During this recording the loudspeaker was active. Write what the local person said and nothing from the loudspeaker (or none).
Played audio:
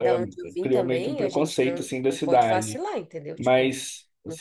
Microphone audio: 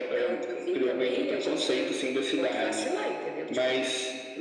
none